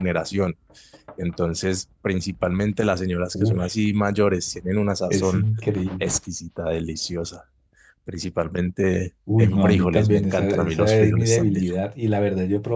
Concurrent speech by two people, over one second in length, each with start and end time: 9.4-11.6

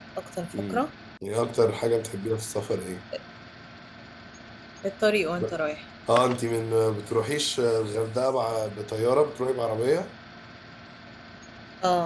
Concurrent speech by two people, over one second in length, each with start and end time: none

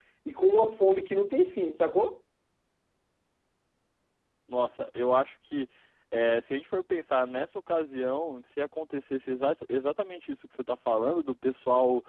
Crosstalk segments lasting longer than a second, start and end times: none

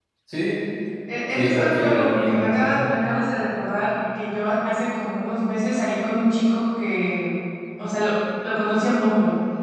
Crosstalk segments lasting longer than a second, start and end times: 1.3-2.7

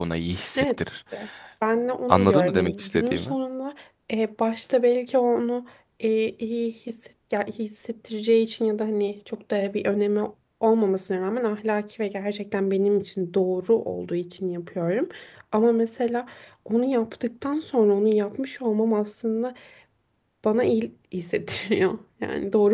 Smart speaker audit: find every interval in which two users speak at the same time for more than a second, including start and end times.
2.1-3.3

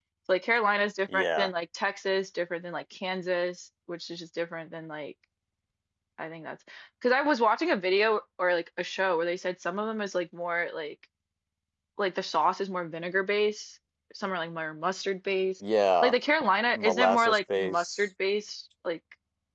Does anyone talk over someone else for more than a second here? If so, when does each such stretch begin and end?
16.8-18.0

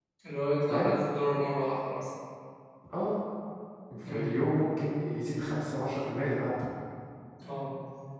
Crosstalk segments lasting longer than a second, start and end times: none

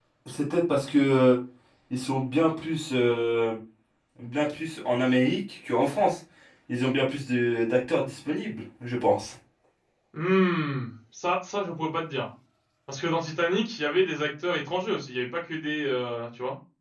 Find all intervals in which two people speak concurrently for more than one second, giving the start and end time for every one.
none

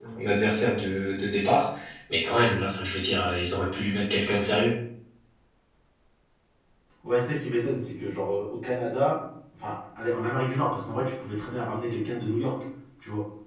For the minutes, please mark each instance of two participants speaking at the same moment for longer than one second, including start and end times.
none

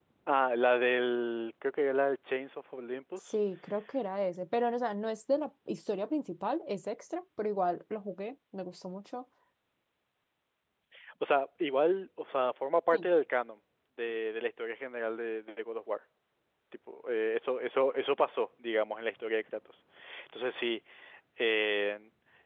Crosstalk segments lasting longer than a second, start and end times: none

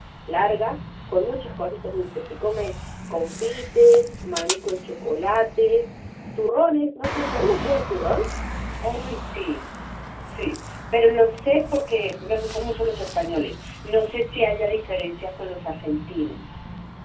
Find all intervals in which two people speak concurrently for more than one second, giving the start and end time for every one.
none

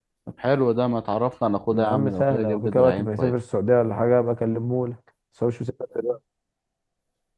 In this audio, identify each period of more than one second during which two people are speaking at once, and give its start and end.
1.7-3.3

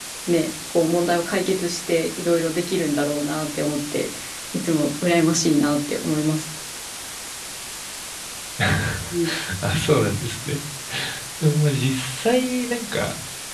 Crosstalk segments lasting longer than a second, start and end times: none

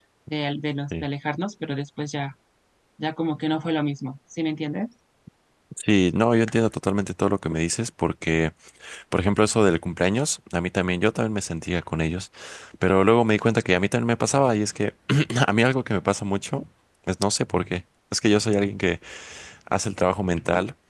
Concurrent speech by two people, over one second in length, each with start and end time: none

